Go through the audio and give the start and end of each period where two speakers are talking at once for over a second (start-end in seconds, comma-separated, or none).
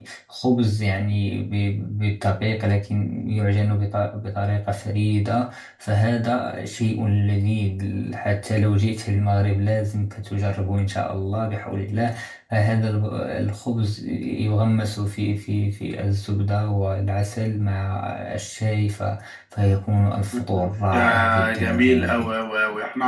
20.3-22.3